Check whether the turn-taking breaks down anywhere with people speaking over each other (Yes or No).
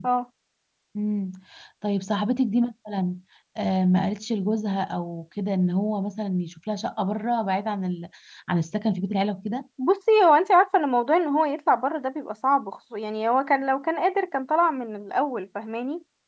No